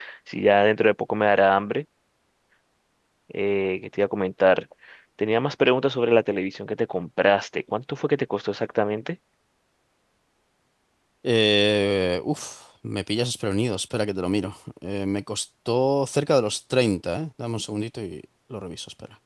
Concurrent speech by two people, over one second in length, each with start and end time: none

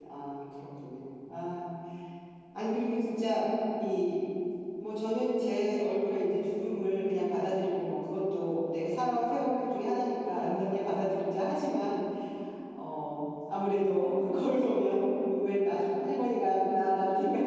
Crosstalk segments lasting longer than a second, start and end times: none

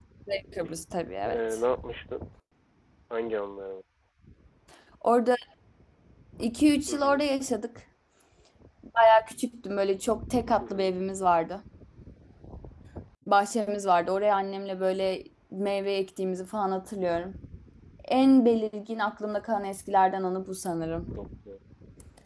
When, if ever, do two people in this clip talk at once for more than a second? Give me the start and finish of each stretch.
none

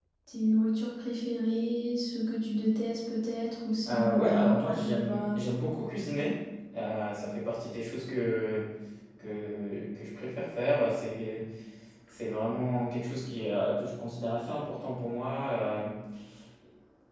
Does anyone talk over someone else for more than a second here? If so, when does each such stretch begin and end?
3.9-5.4

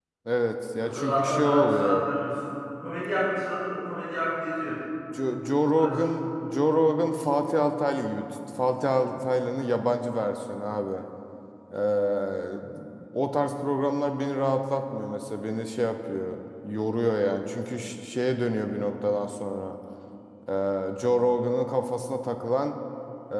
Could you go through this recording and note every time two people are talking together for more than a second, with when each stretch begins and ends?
0.8-2.1

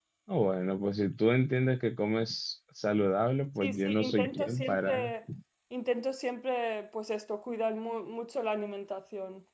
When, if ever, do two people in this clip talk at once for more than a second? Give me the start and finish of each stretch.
3.6-5.1

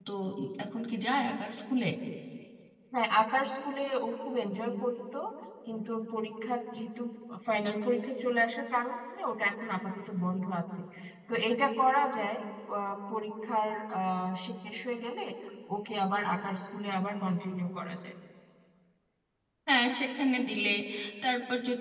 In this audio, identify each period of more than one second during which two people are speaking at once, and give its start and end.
none

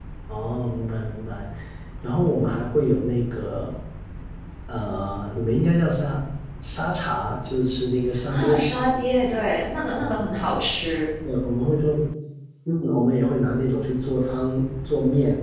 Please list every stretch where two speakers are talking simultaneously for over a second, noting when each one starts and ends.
none

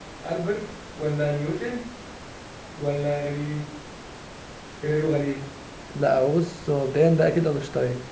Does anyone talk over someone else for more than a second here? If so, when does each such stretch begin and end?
none

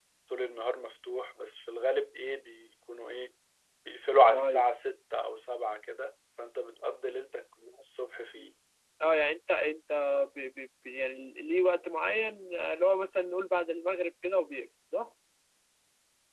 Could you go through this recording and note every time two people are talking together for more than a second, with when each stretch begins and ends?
none

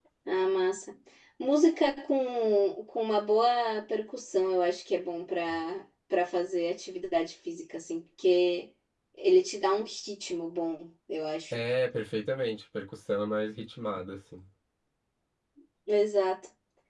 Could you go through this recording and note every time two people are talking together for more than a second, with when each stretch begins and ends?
none

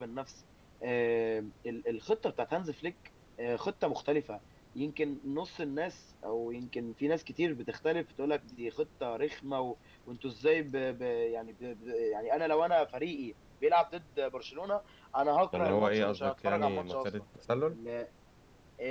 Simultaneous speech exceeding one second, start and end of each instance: 15.5-17.1

